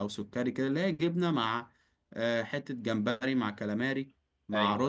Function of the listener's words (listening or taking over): listening